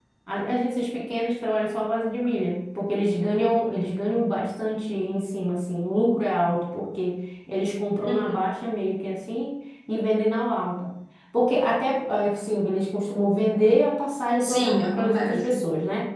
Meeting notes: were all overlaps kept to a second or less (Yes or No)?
No